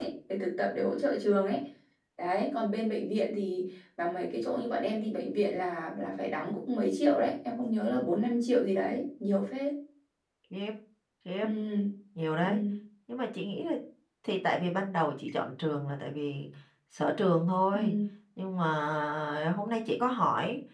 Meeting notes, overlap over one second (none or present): none